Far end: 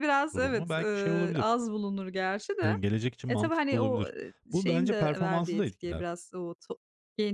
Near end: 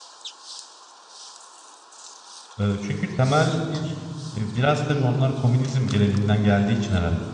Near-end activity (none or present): present